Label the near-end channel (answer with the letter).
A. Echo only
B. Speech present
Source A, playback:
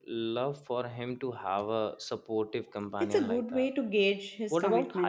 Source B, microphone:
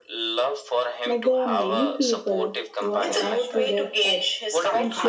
B